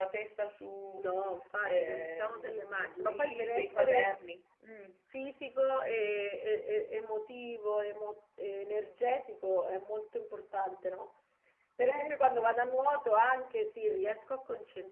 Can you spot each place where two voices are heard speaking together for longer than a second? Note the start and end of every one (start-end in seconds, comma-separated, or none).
1.6-4.1